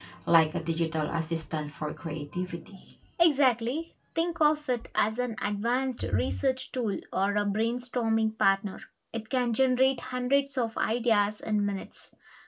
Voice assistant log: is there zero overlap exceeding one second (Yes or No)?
Yes